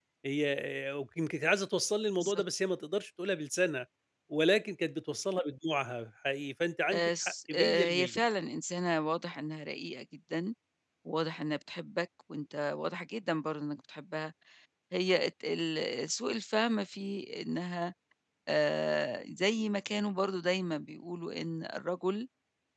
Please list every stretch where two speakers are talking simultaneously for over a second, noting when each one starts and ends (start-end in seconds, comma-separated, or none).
6.9-8.1